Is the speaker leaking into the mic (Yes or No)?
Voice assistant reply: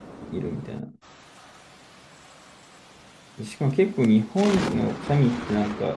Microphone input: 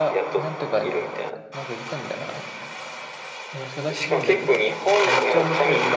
Yes